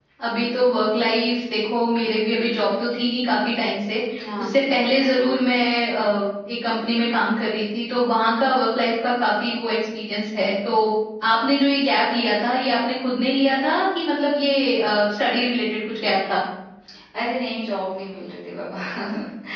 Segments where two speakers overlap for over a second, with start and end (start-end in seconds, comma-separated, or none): none